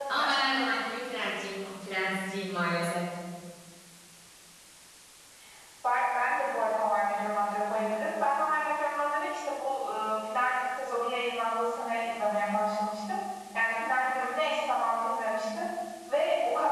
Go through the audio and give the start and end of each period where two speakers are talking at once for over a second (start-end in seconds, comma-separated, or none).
none